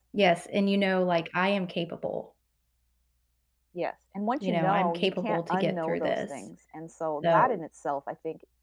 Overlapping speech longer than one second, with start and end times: 4.4-6.3

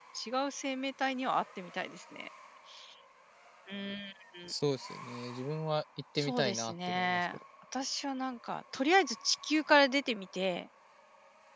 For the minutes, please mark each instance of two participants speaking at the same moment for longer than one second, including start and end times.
6.2-7.4

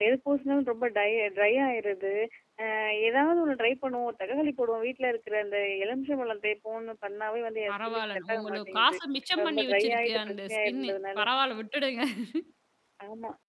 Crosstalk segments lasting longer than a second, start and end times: 7.7-9.0, 9.4-11.3

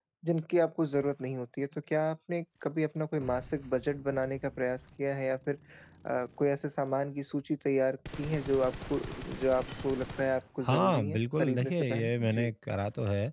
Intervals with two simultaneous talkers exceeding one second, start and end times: 10.6-12.5

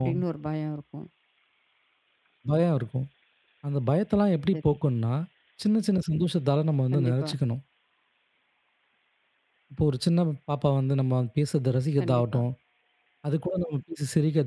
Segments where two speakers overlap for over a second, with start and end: none

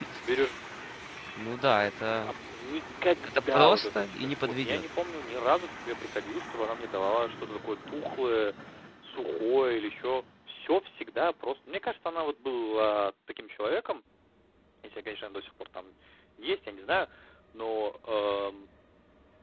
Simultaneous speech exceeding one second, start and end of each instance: 3.2-4.8

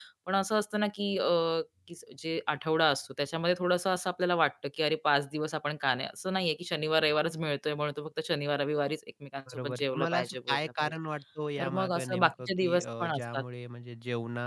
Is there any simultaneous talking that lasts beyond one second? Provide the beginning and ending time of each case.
9.5-10.9, 11.6-13.4

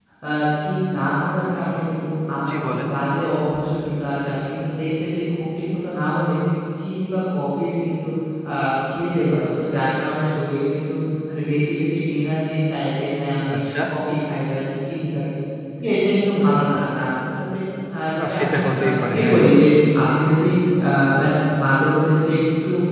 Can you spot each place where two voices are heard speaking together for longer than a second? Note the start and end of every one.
18.2-19.4

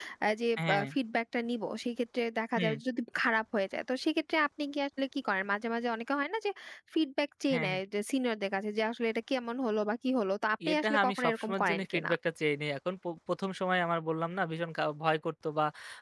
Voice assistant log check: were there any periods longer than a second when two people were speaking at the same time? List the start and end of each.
10.7-12.1

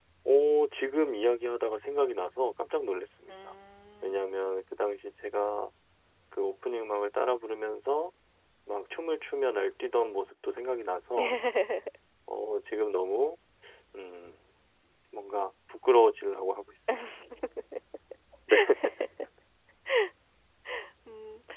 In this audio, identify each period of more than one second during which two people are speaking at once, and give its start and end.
none

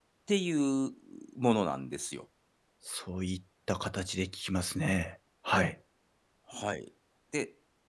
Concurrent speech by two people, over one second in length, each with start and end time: none

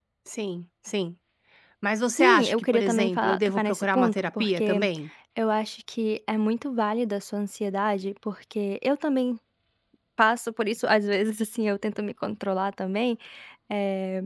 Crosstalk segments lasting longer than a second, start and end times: 2.2-4.9

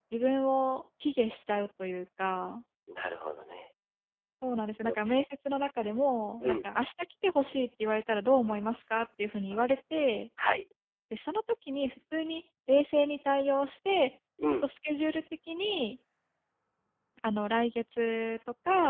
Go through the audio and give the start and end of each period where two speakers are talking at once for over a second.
none

